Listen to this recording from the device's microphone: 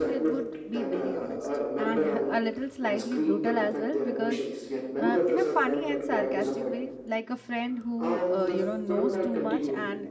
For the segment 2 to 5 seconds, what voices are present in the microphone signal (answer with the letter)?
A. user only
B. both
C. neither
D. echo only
B